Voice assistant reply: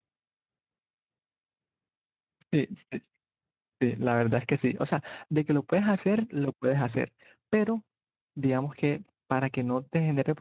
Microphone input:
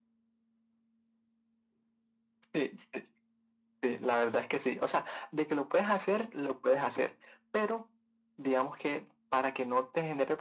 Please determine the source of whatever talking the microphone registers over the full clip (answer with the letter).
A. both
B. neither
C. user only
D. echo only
D